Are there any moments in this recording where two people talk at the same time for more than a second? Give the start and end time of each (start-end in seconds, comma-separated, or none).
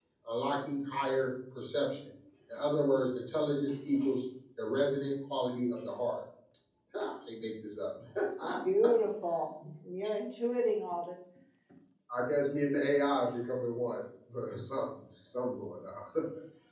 none